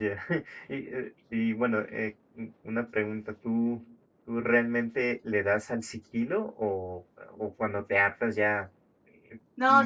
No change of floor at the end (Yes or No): No